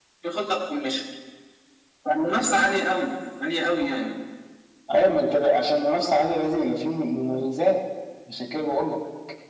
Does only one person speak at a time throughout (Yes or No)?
Yes